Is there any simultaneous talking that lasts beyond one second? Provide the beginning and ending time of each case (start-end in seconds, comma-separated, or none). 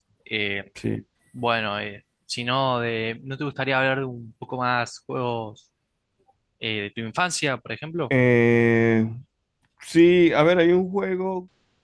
none